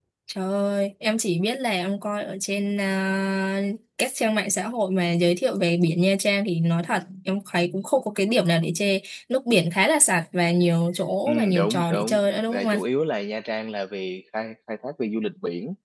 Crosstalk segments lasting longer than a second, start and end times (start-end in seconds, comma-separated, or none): 11.3-12.8